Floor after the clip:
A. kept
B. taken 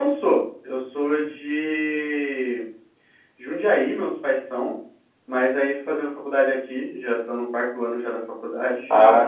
B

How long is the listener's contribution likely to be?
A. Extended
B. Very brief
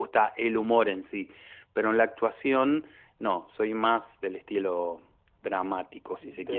A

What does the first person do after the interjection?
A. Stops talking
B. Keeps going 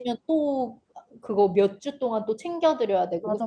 A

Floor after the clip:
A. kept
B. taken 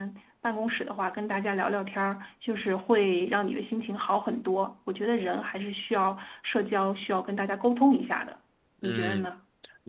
B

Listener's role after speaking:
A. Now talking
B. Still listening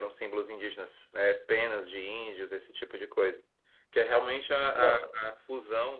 B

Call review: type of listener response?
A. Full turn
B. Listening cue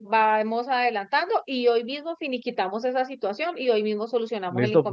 A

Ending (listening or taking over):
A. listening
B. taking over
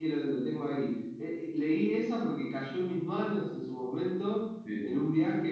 A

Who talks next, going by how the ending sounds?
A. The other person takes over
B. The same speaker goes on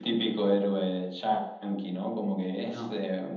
B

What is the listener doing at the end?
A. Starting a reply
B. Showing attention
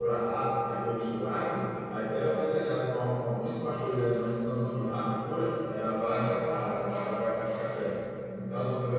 B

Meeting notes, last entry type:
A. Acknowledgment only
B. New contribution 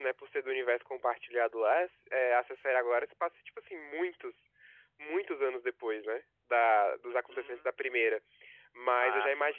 A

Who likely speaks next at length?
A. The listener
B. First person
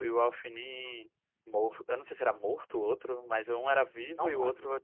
B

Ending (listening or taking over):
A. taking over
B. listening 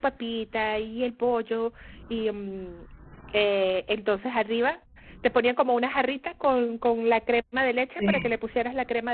B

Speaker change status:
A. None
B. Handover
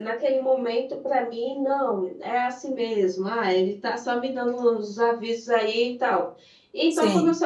A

